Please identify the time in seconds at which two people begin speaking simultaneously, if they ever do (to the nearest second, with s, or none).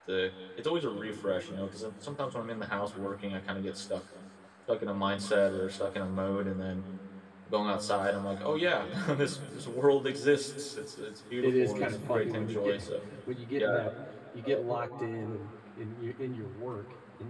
11 s